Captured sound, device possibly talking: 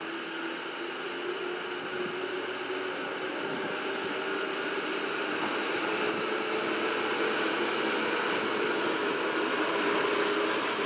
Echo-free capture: Yes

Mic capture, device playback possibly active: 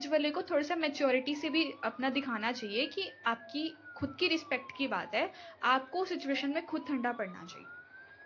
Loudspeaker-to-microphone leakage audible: No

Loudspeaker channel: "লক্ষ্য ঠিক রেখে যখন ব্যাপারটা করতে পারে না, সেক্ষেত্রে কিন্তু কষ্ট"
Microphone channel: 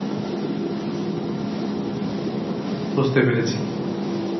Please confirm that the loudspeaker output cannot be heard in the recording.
Yes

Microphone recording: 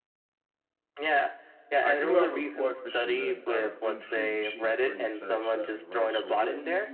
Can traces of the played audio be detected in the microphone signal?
Yes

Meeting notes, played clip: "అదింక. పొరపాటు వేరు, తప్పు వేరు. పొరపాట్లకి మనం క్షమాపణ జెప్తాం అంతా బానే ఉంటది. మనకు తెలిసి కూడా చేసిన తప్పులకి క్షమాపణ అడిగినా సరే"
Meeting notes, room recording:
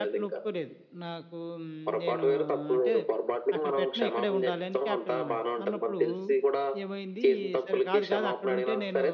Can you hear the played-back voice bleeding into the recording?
Yes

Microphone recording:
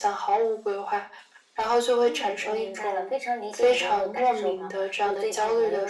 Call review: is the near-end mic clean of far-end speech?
No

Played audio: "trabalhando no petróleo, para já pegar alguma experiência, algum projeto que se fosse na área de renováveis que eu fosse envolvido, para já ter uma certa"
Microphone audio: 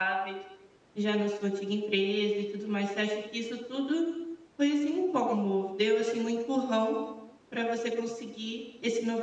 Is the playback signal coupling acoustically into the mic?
No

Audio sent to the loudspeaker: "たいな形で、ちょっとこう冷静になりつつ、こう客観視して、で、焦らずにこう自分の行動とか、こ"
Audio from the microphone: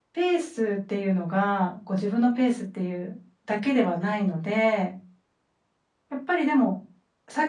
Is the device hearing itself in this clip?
No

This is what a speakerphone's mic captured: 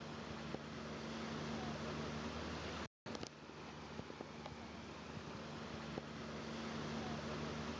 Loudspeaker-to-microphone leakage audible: No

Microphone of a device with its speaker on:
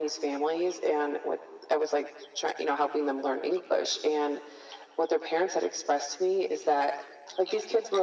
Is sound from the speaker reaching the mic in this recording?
Yes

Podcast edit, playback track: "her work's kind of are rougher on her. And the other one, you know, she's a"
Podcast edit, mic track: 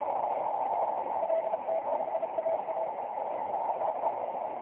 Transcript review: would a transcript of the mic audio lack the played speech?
Yes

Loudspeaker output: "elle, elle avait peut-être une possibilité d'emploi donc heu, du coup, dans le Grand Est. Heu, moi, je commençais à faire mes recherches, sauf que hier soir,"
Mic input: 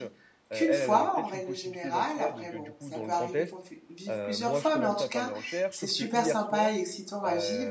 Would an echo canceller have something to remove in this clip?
Yes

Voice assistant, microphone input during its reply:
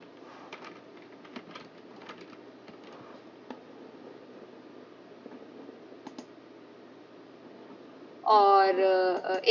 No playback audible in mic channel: Yes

